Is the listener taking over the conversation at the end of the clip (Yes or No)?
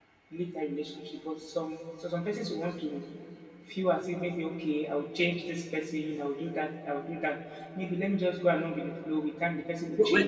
Yes